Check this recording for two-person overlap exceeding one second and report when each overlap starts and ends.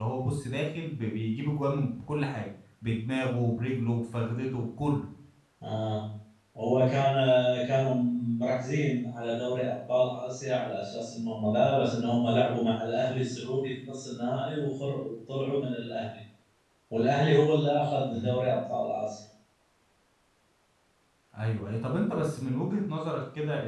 none

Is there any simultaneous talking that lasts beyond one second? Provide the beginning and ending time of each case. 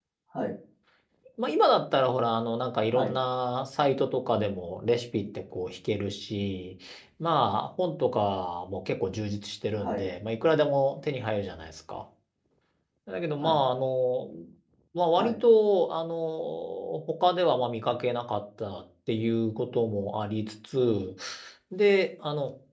none

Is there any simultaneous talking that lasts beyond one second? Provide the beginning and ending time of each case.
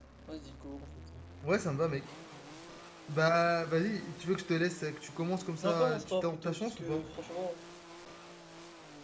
5.6-7.0

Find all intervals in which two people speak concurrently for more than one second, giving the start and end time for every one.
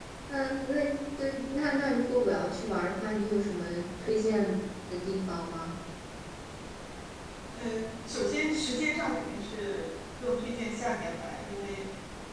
none

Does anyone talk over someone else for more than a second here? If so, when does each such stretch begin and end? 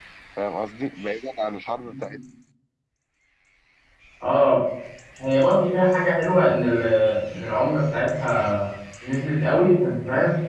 none

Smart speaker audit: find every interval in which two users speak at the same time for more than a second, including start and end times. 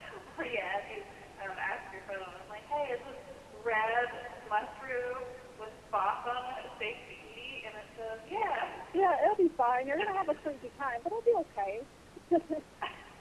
none

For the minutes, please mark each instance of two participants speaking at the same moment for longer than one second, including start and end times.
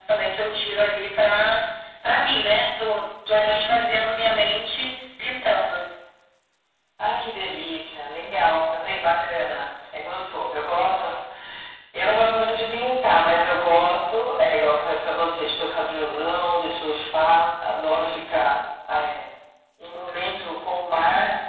none

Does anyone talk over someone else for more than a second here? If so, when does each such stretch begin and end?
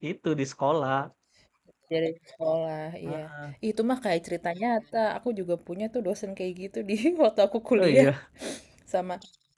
none

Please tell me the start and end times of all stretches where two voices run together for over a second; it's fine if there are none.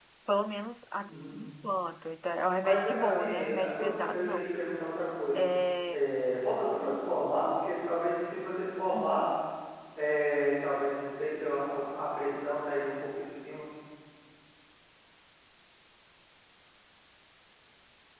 2.6-4.4

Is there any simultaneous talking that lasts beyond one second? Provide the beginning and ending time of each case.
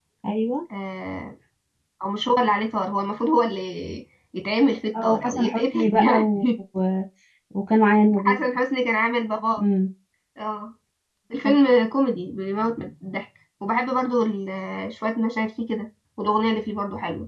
5.0-6.4

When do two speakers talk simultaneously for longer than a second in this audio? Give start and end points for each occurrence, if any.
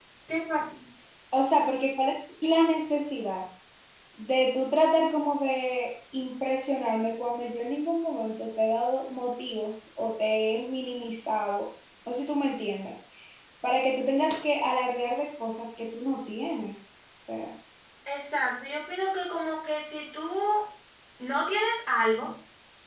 none

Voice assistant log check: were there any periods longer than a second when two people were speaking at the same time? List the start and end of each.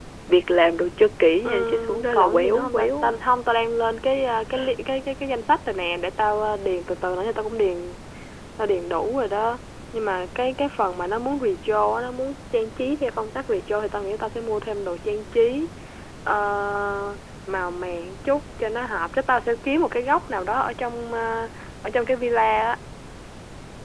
1.4-3.1

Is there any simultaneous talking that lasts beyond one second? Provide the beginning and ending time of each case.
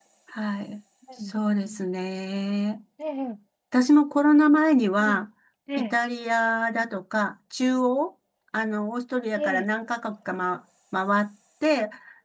none

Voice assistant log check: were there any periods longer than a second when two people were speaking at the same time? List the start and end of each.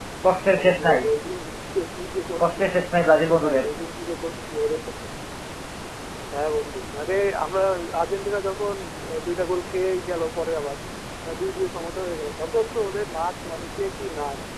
none

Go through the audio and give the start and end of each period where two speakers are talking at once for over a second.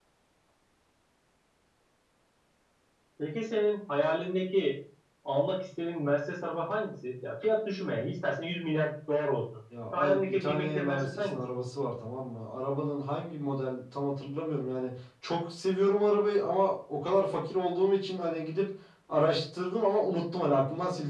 9.9-11.4

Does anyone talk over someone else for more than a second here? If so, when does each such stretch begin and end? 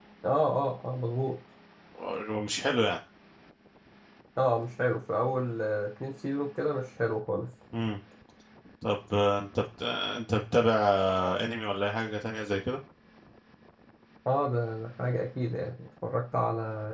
none

